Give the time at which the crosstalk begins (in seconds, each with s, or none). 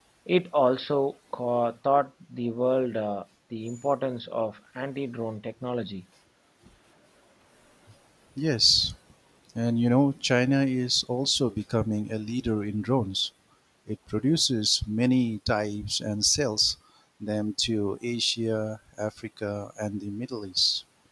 none